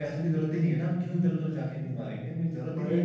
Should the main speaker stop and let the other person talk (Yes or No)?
Yes